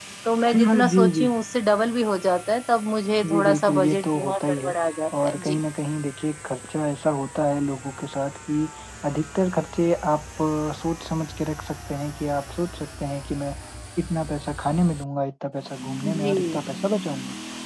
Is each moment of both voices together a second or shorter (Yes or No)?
No